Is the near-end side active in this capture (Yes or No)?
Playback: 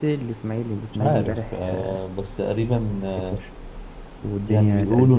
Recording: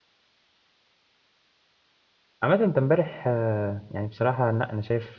Yes